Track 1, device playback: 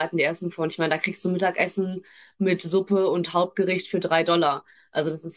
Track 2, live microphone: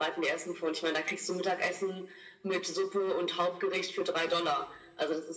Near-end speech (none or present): none